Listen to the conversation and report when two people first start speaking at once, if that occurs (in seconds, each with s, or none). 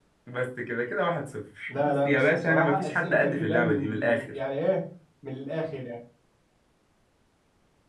1.7 s